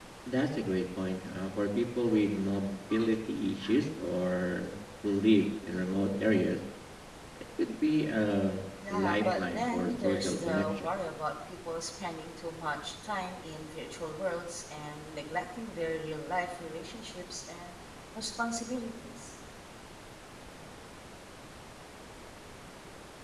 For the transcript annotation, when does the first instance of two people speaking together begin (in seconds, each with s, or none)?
8.8 s